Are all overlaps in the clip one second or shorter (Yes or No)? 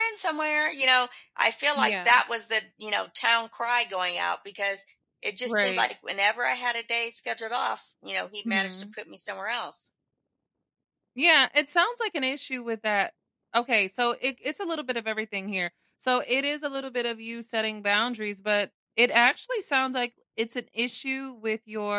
Yes